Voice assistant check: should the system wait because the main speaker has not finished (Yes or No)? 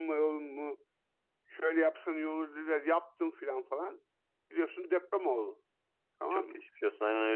No